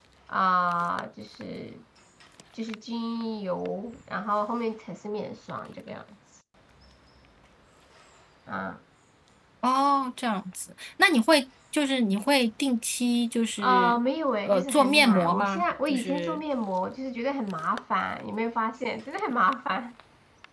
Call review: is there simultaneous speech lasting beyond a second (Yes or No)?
Yes